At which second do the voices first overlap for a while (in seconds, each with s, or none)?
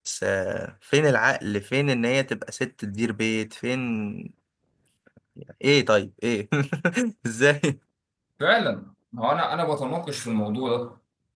none